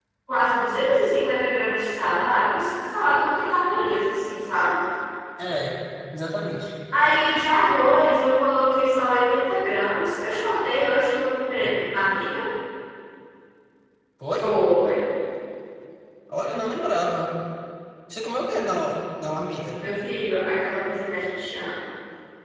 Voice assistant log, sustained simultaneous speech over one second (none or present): none